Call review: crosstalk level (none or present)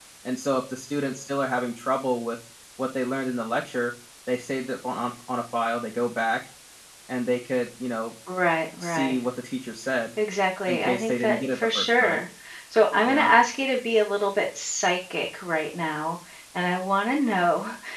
present